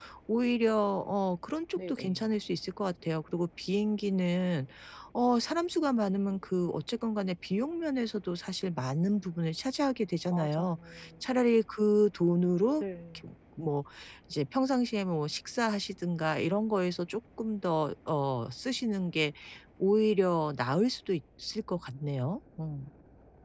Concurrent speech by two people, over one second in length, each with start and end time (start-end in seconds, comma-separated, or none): none